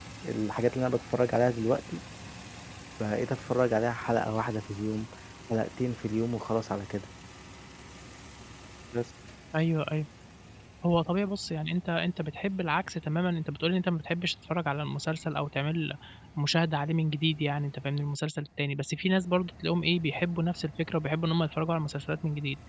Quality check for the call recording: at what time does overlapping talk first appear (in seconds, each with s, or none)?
none